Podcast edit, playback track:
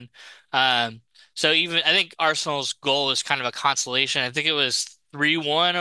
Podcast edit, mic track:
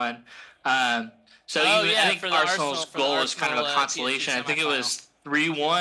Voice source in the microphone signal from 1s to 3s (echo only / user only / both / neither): both